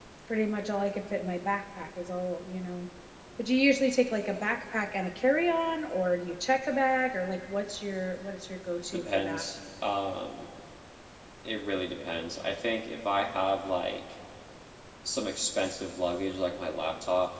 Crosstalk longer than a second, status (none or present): none